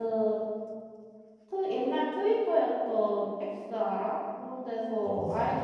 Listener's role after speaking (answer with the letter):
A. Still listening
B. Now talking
A